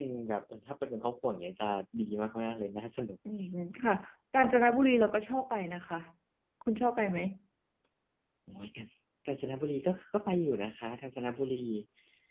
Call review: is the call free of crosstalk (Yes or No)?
Yes